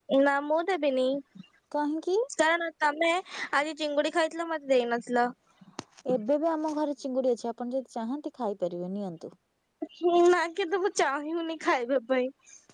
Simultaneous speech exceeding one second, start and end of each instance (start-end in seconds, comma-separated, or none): none